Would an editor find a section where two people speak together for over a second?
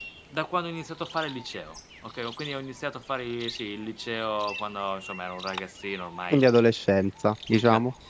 No

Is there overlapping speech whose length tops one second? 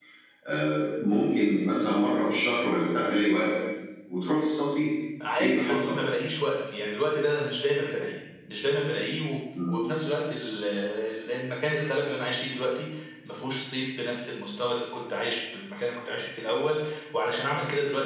No

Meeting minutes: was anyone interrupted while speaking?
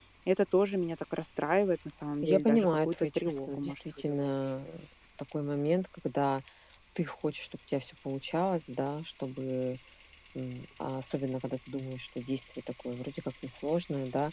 Yes, from 2.2 s

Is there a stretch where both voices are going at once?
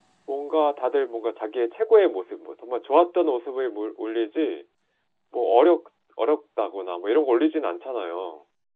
No

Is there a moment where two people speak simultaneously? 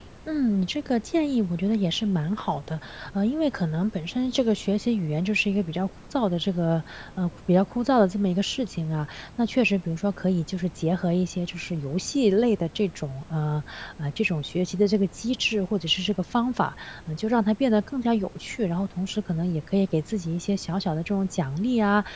No

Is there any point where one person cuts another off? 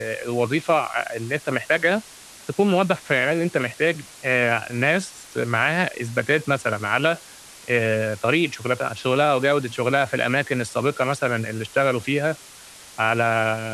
No

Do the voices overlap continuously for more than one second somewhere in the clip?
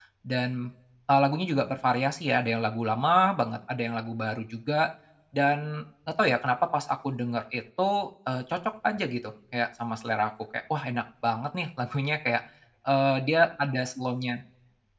No

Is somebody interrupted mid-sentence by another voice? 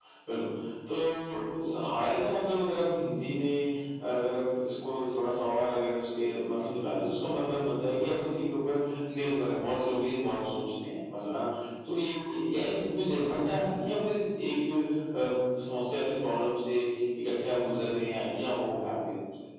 No

